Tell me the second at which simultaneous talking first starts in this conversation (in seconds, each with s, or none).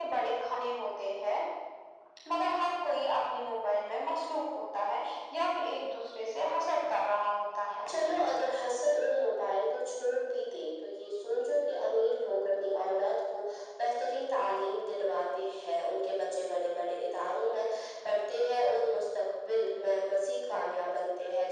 none